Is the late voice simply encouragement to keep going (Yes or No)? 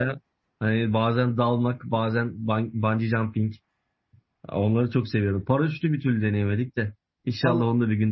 No